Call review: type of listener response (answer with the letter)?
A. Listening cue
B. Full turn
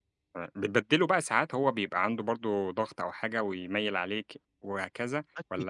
B